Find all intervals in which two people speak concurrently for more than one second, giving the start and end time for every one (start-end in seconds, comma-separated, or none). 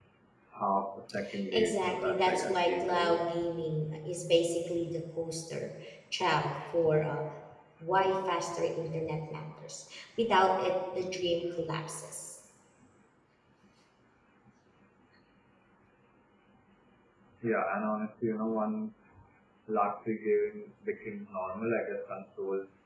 1.5-3.3